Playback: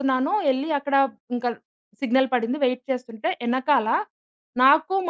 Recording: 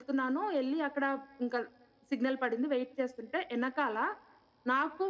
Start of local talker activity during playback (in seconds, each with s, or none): none